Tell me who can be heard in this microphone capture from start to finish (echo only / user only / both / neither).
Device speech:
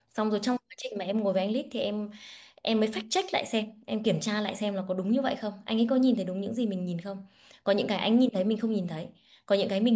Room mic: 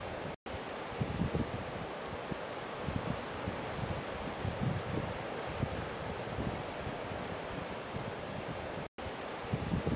neither